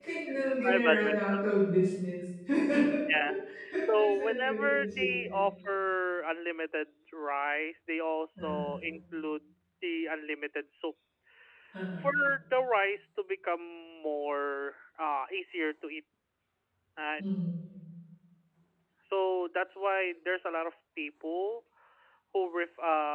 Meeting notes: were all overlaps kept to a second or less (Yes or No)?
No